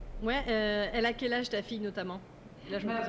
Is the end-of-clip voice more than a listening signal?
Yes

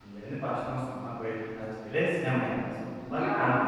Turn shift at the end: No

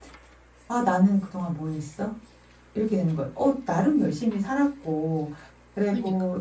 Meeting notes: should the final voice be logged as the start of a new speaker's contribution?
No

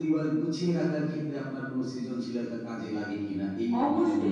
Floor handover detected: Yes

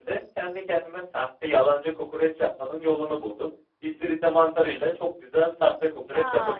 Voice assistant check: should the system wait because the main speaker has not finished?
No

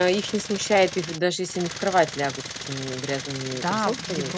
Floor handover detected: Yes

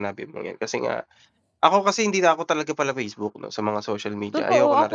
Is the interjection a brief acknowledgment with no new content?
No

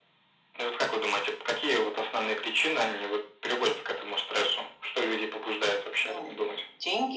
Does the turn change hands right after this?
Yes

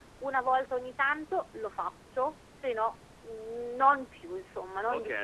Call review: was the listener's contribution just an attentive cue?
No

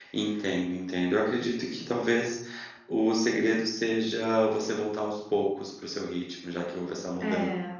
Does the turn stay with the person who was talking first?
Yes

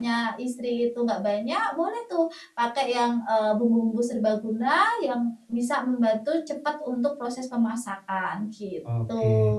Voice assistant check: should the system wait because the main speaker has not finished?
No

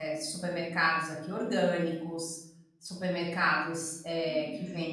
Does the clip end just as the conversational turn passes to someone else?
No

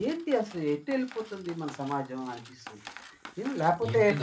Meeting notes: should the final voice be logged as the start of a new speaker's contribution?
Yes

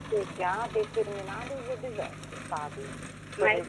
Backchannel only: No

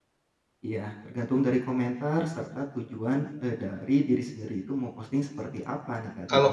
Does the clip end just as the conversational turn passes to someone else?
Yes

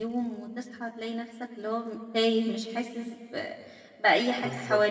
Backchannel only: No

